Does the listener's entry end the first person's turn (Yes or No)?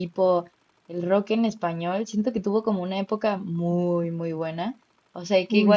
No